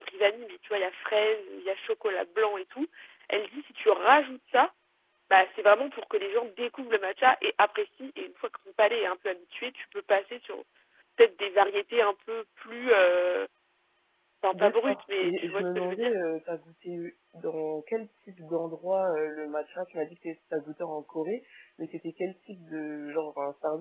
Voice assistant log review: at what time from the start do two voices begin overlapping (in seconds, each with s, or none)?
14.5 s